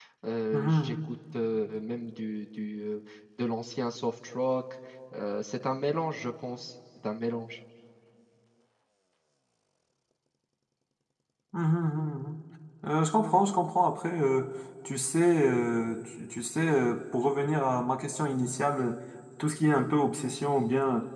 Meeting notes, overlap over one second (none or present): none